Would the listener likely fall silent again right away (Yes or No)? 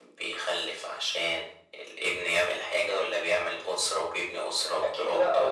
No